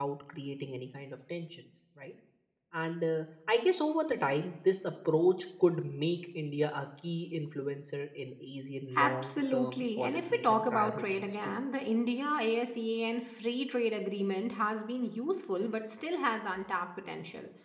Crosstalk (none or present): present